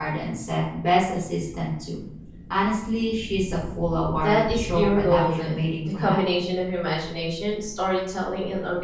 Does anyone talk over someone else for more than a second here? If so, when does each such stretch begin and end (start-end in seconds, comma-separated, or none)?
4.2-6.2